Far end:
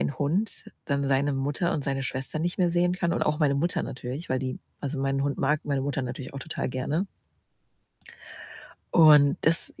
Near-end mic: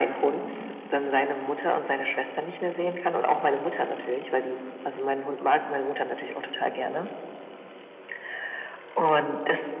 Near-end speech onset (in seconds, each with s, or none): none